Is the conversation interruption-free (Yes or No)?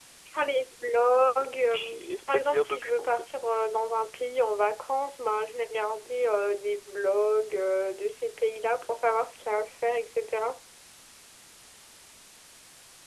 No